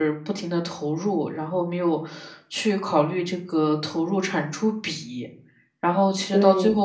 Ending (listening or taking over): listening